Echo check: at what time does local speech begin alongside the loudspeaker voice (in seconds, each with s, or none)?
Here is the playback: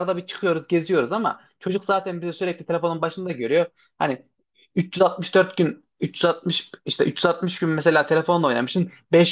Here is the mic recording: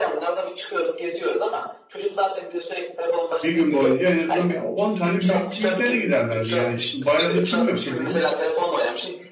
3.4 s